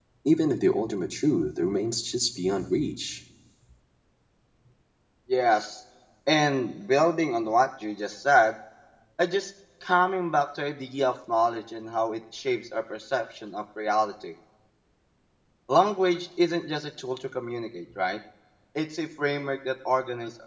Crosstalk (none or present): none